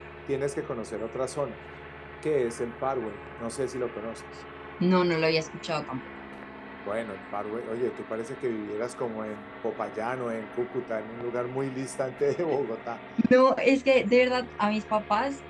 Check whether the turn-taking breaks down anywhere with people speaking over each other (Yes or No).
No